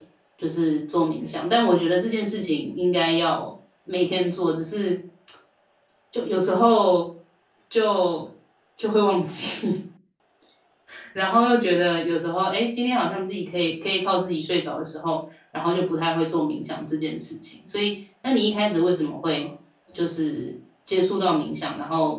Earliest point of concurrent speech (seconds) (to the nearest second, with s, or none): none